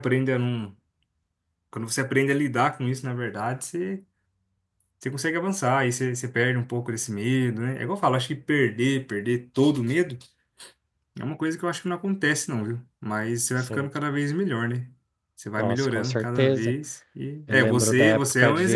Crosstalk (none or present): present